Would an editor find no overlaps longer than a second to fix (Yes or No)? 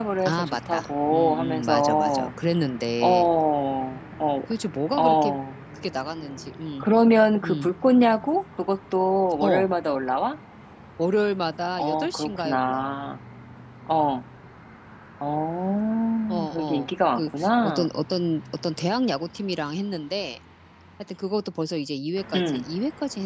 No